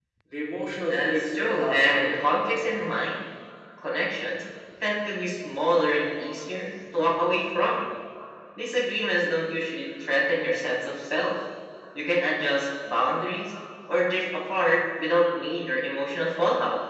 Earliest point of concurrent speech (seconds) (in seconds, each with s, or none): 0.9 s